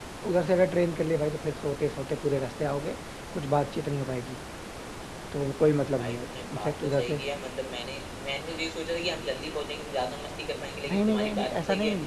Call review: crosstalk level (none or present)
present